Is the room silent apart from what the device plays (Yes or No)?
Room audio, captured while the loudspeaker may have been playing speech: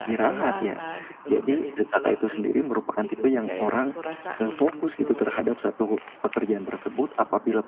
No